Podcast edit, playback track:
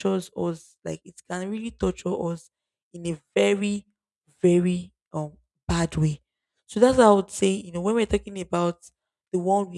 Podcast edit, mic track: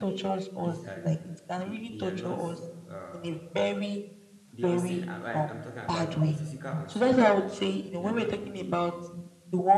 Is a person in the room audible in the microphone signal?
Yes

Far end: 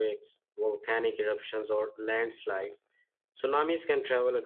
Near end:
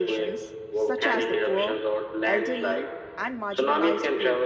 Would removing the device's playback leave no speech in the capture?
No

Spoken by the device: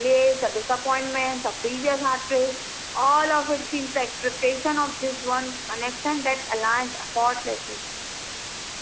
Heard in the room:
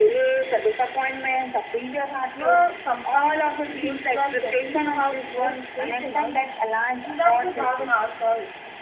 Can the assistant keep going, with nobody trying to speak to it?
No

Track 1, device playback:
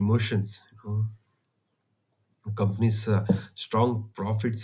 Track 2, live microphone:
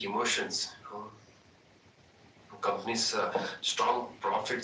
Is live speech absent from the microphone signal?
Yes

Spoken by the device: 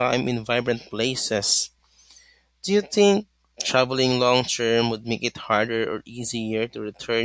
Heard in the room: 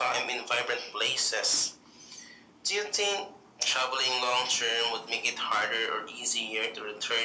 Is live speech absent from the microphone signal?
Yes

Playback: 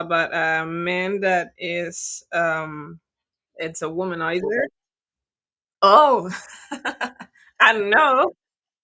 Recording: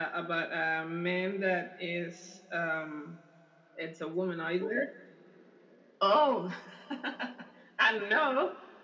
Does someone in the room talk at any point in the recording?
No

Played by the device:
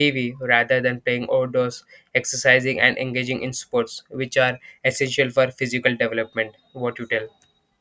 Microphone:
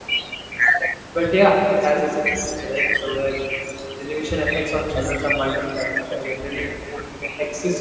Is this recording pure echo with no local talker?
No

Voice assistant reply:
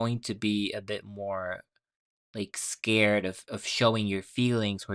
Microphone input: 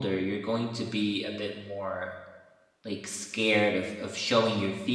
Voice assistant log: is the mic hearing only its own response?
Yes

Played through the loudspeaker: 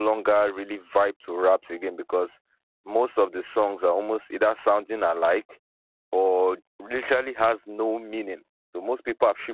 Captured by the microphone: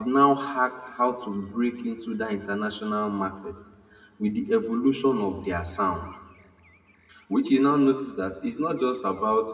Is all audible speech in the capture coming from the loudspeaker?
No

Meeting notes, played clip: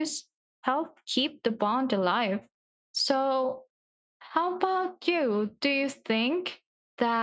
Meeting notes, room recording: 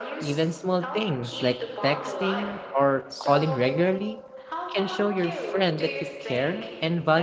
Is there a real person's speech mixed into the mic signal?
Yes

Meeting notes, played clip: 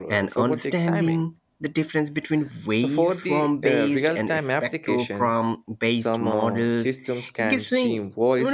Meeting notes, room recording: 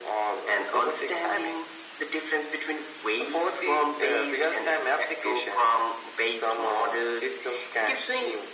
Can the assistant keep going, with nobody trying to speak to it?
Yes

